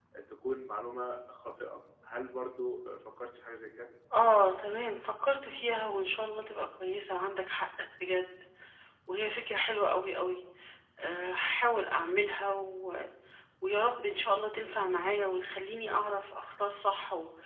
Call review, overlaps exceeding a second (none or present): none